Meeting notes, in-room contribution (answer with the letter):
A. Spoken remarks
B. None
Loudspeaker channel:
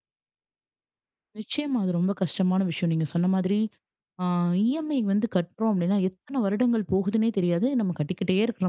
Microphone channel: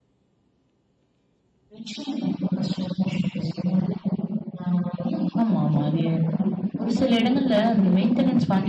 A